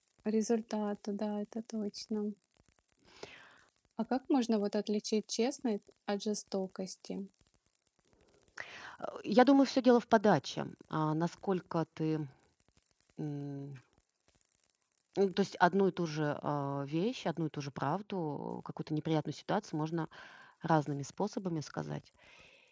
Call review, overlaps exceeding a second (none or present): none